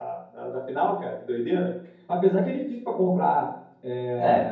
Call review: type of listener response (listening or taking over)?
listening